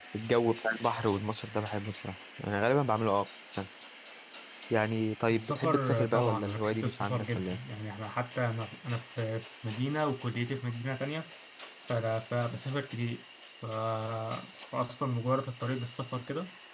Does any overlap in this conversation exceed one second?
Yes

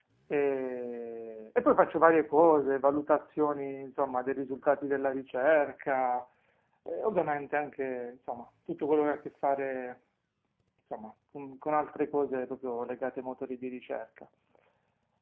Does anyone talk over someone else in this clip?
No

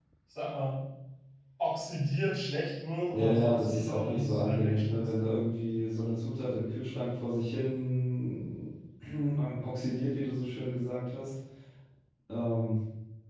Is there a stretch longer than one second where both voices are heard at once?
Yes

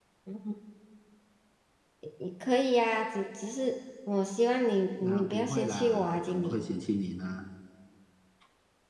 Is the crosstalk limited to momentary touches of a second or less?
No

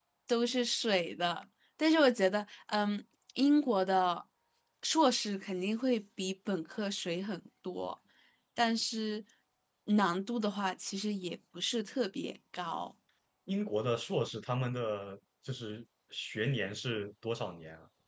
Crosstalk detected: No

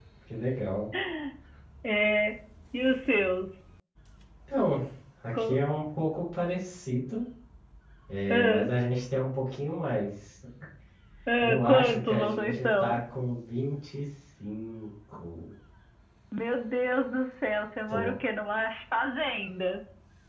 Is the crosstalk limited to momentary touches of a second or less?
No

